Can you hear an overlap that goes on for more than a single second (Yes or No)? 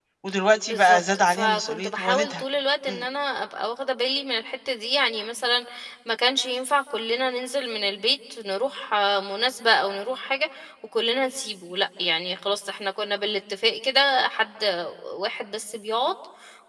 Yes